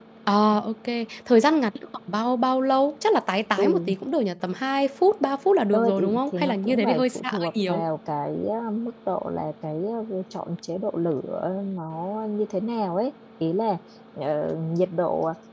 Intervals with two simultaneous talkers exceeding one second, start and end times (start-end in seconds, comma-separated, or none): 5.7-7.8